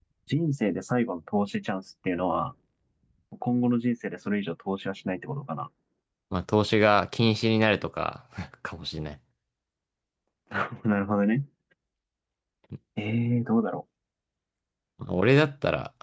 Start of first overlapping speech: none

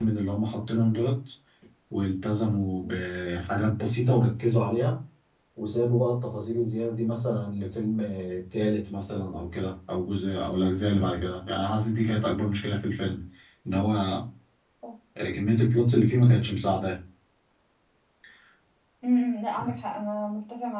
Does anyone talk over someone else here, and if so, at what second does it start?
none

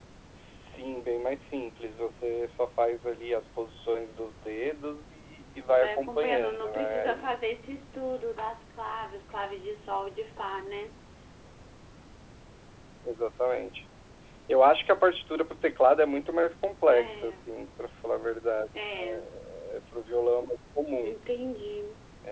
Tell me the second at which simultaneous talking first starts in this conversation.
5.7 s

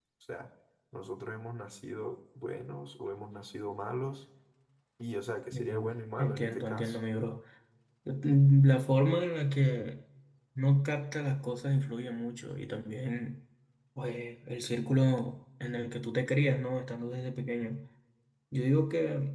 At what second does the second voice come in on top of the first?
5.5 s

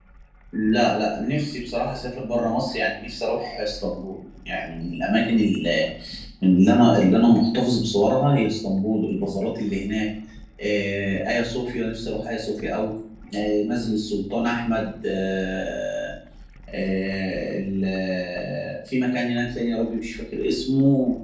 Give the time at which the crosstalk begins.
none

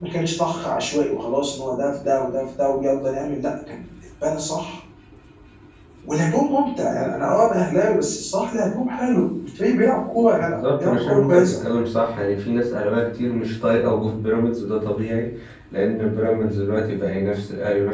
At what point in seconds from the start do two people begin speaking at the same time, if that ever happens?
10.4 s

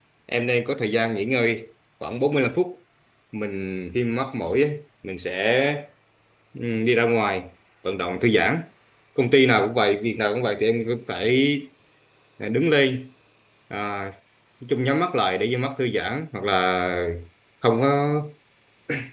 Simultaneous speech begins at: none

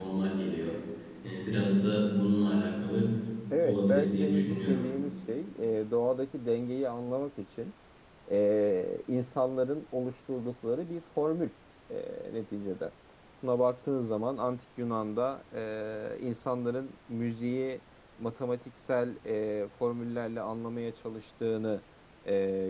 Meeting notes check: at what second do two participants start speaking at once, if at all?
3.6 s

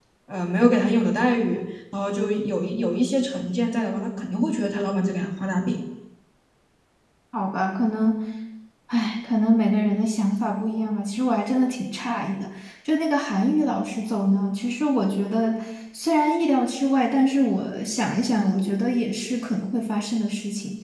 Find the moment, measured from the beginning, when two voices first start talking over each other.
none

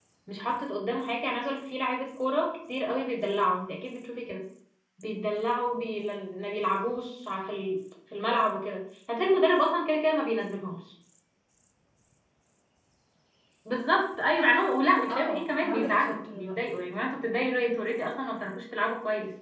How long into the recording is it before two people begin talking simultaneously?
15.1 s

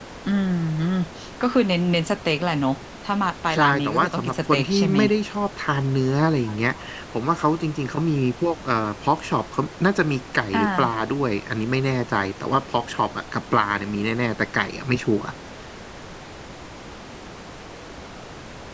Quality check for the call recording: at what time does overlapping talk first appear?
3.5 s

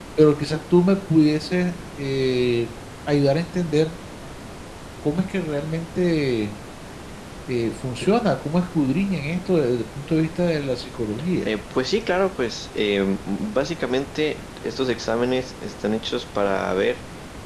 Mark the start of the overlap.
none

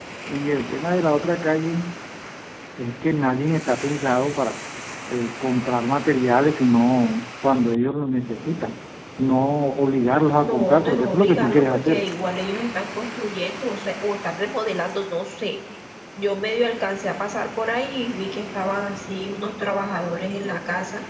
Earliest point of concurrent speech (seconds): 10.4 s

